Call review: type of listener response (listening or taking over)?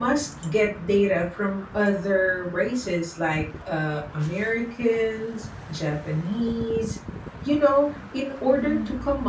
listening